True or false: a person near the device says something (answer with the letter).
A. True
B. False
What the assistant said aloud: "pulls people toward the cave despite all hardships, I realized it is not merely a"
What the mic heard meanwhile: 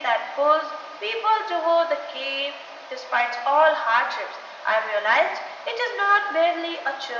B